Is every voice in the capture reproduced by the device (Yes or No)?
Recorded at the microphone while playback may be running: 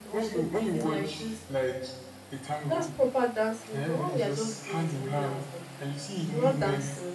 No